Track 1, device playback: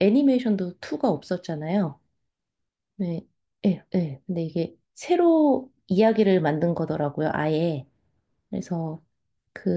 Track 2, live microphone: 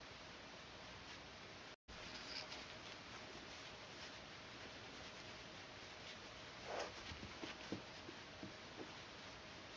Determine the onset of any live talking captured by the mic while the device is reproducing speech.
none

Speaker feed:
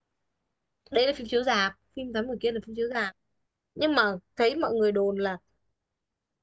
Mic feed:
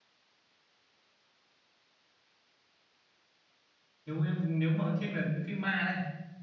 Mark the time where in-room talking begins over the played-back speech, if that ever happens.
4.0 s

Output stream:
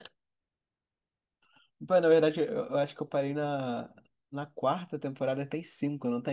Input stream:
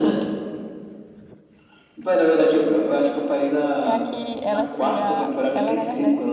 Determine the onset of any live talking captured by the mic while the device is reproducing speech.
3.8 s

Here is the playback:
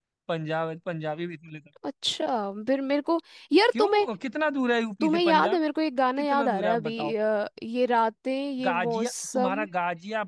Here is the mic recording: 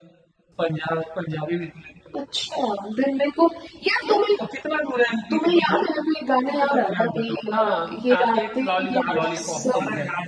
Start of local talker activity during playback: 7.5 s

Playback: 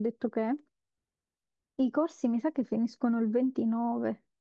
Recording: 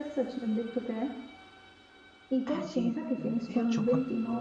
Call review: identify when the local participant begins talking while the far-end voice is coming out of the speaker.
2.5 s

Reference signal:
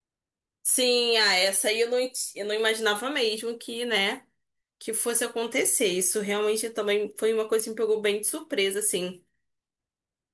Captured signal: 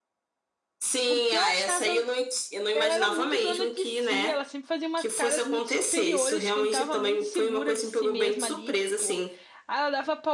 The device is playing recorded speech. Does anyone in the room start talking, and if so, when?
1.1 s

